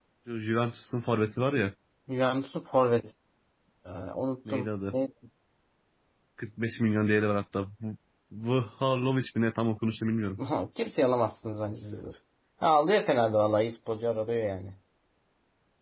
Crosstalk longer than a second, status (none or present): none